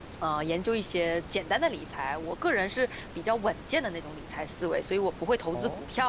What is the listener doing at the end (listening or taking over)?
listening